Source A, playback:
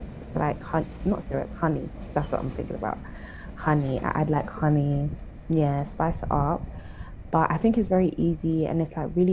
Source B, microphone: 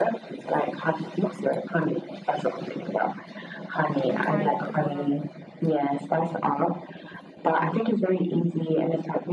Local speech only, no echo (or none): I'm crying in the corner.